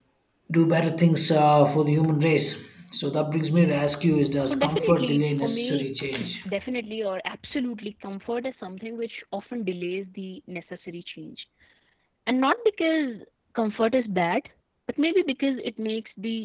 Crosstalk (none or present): present